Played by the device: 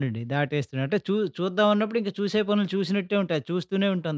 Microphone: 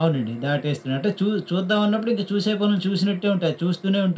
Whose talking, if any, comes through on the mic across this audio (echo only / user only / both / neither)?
echo only